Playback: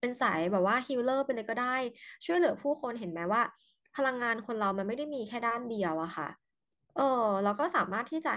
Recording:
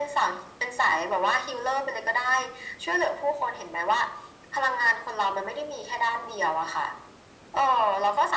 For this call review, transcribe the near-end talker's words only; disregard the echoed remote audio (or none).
none